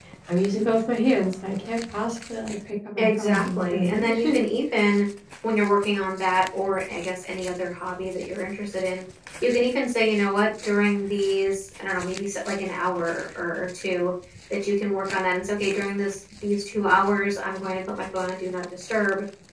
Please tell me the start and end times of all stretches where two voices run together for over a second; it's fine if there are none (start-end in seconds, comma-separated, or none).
3.0-4.4